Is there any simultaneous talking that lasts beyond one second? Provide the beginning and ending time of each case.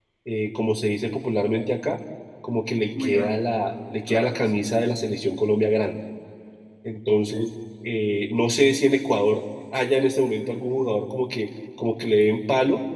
3.0-4.6

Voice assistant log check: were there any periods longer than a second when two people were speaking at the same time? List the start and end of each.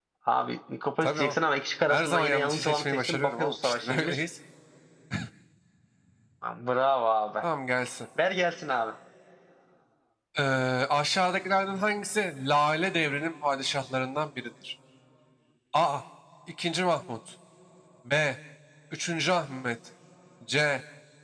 1.9-4.2

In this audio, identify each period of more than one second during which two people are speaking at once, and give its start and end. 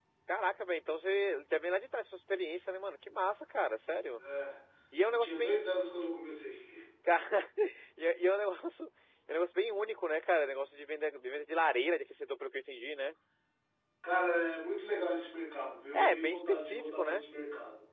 15.9-17.2

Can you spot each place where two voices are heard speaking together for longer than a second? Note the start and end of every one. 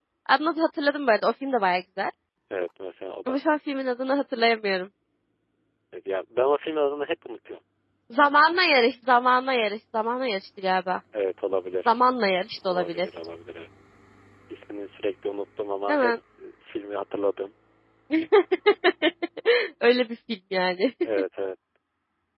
none

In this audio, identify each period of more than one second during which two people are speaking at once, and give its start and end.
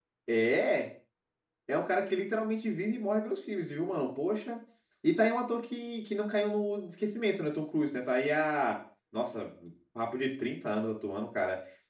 none

